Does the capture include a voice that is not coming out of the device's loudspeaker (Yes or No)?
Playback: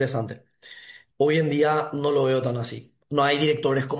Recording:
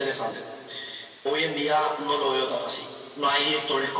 No